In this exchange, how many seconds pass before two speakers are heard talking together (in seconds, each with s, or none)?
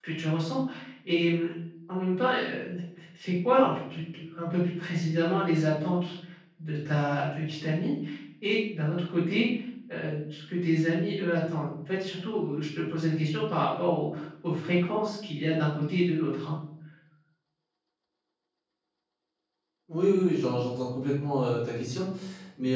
none